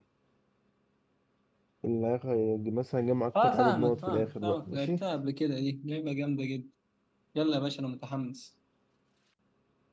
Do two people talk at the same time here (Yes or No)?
Yes